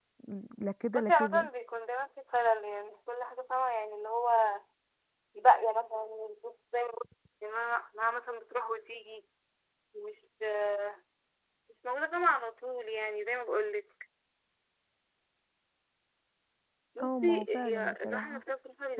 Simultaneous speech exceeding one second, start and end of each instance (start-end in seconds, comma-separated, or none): 17.0-18.4